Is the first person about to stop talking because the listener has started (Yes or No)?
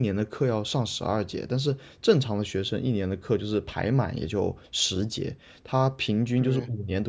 No